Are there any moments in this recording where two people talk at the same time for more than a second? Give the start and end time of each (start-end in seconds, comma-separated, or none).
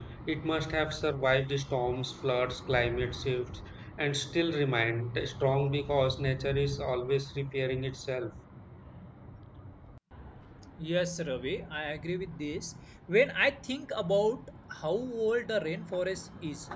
none